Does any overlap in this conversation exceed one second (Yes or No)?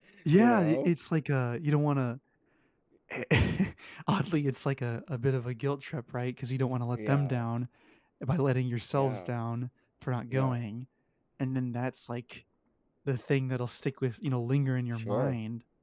No